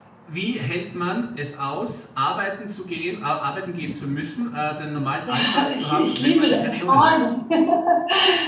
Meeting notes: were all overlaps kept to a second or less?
No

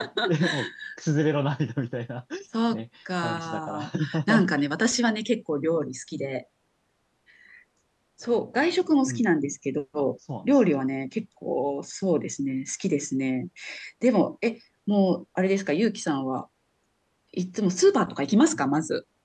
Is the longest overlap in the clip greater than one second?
Yes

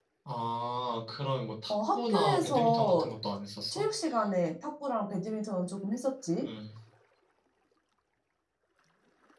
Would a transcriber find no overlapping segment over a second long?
No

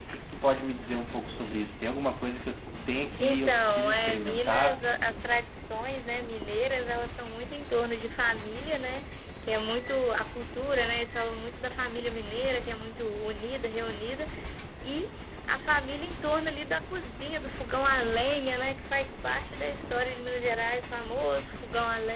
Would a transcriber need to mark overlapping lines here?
Yes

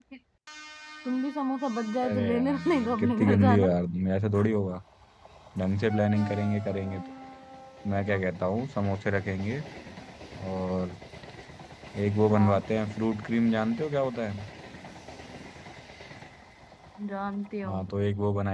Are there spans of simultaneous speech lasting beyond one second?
Yes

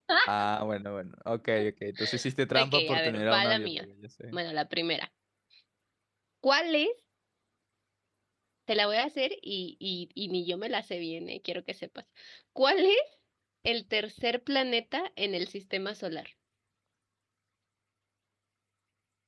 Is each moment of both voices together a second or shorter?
No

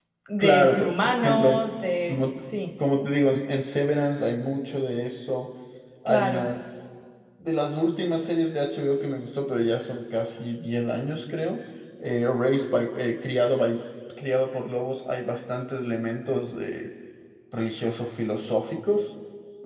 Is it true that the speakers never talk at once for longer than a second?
No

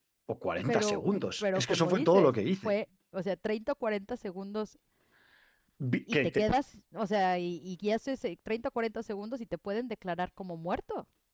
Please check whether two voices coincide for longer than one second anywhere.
Yes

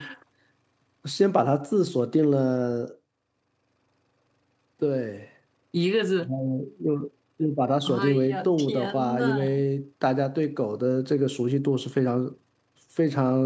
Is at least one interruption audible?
Yes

